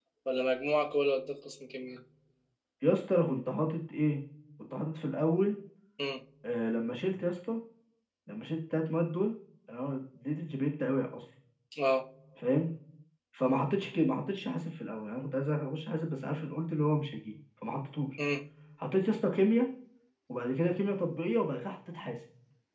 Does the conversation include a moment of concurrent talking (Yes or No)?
No